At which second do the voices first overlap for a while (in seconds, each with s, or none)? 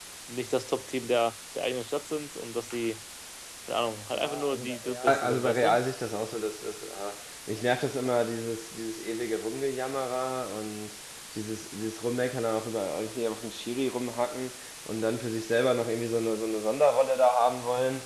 4.1 s